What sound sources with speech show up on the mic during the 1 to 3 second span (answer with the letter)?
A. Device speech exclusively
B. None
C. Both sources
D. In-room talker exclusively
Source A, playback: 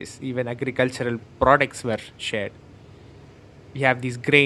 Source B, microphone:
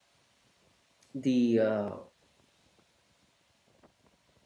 D